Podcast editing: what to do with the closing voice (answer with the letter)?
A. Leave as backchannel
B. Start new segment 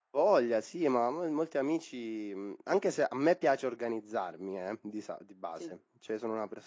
A